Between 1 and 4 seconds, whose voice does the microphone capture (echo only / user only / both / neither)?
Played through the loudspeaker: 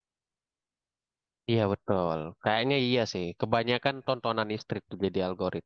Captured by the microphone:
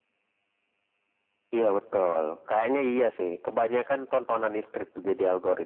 echo only